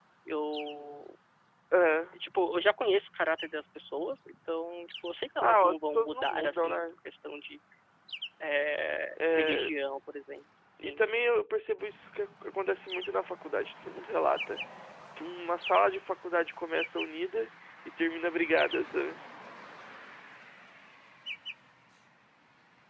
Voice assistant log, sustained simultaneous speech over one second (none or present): present